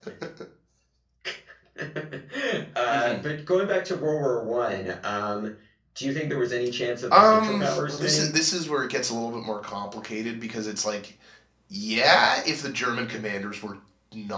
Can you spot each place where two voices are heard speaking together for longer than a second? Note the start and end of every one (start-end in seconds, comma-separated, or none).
7.1-8.4